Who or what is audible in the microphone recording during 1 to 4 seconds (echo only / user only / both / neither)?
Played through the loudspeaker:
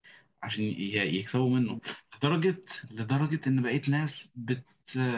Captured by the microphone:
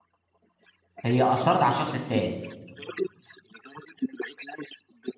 both